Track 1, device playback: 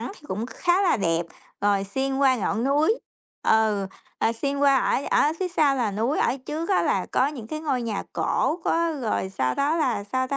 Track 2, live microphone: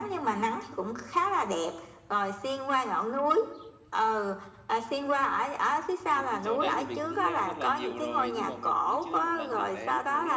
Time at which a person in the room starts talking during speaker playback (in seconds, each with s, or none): 6.1 s